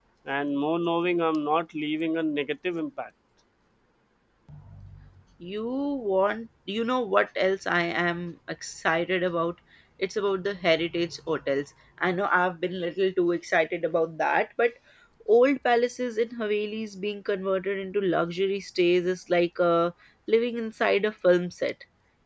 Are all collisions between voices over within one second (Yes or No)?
Yes